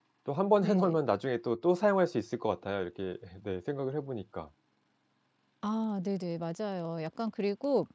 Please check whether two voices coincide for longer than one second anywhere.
No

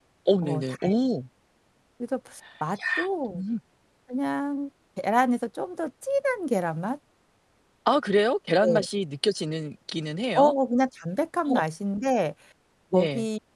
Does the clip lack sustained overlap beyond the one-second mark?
Yes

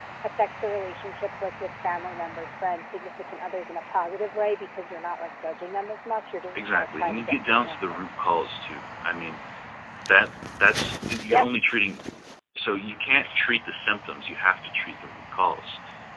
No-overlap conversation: No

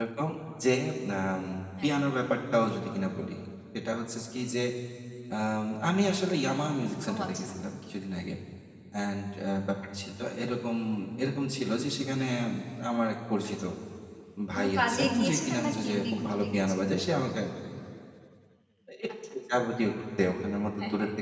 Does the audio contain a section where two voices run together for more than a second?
Yes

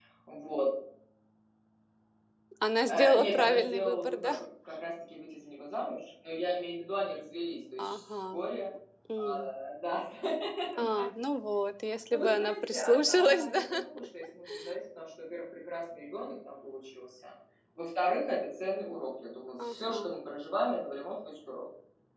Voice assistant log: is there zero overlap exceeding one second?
No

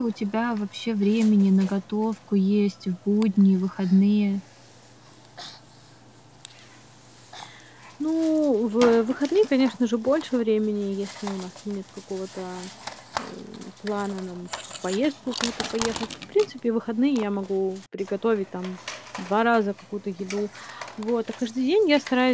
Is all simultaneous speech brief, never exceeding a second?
Yes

